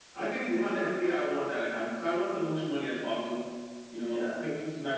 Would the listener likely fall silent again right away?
Yes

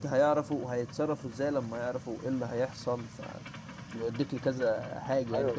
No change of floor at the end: No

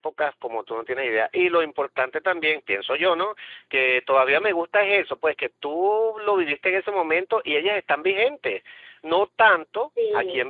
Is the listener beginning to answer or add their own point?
No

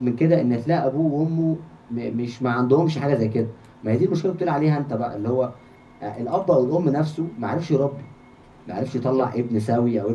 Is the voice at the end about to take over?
No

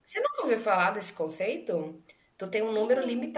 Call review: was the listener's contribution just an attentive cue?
Yes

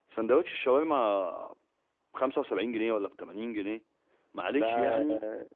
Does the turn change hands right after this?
No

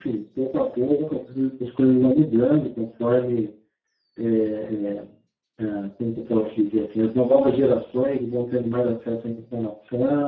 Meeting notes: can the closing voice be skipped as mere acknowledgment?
Yes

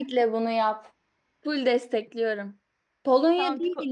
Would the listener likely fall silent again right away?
Yes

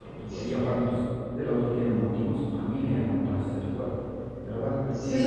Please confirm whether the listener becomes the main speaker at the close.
No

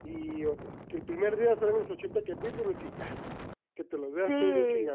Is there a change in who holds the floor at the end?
Yes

